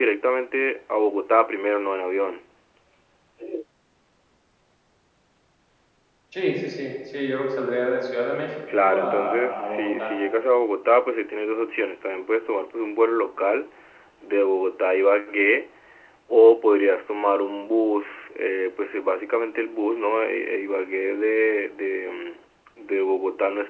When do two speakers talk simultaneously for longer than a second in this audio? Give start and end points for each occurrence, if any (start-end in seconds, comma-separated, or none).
8.8-10.1